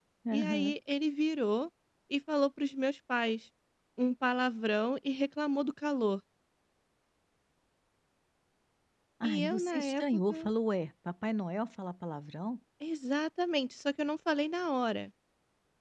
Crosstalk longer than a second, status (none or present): present